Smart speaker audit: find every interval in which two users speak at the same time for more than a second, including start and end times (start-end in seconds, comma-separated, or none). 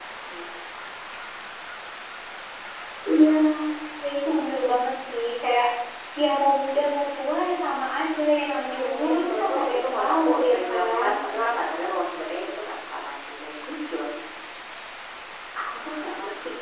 8.7-11.1